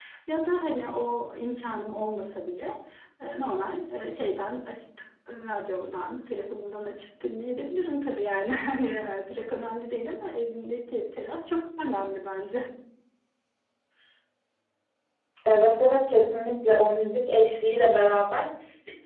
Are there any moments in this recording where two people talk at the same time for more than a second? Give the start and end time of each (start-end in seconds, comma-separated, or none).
none